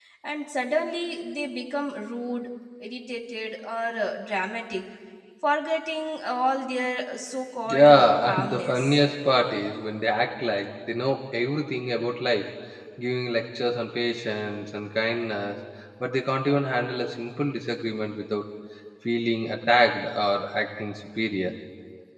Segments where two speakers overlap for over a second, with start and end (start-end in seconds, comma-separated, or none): 7.7-9.0